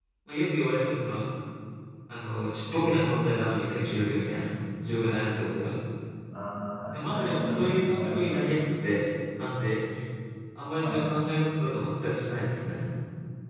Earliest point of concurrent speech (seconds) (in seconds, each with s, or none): 6.9 s